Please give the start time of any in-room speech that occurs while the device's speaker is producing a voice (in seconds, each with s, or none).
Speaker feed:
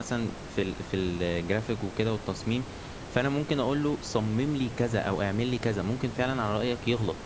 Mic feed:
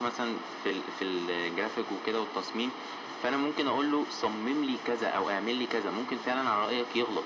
none